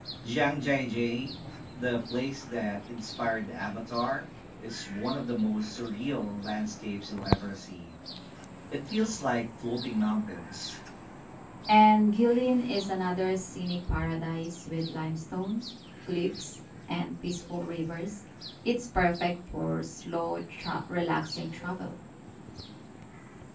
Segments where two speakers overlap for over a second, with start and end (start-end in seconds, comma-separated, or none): none